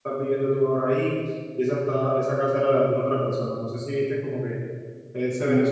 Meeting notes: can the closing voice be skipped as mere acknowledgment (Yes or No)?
No